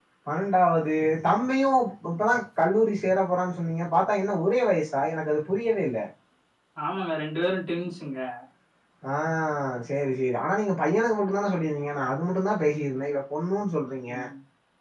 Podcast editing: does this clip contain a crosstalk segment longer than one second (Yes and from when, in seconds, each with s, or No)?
No